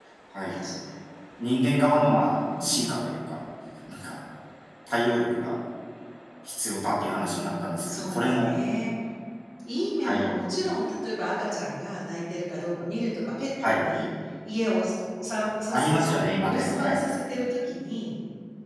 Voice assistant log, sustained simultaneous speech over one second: present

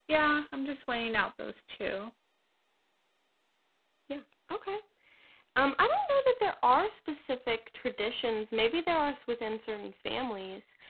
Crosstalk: none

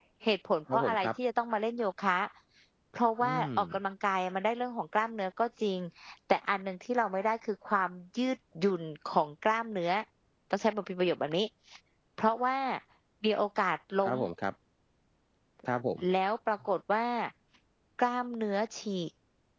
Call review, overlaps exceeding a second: none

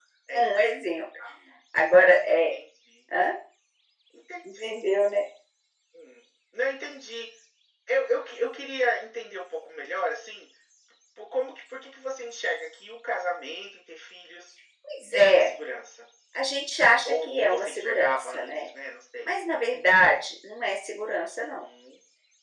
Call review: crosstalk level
present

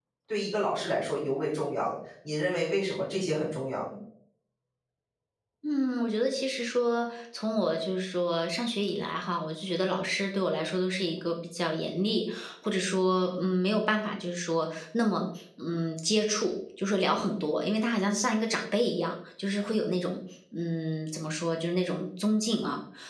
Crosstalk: none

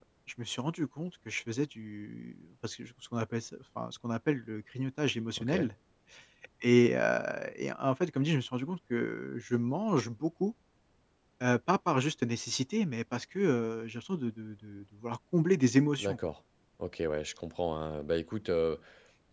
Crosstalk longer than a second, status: none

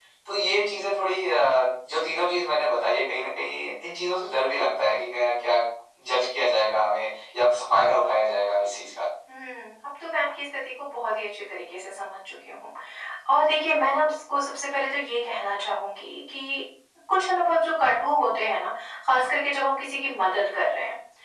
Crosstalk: none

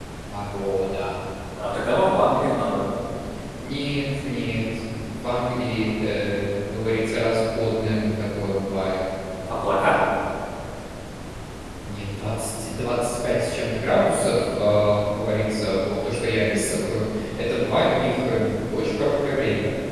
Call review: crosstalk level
none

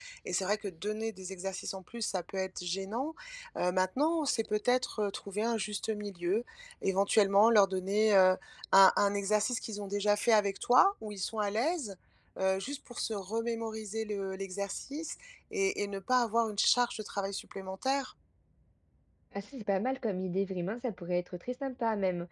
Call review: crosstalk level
none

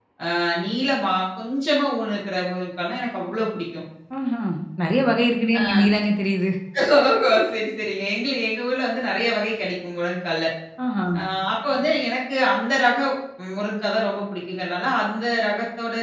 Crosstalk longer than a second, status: none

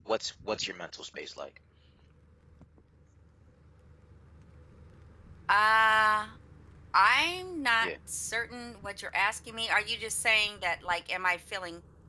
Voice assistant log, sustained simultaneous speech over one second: none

